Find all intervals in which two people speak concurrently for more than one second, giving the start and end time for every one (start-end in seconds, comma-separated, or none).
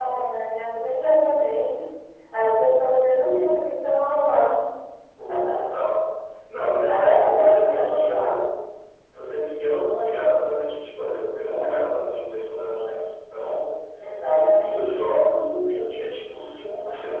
6.8-8.3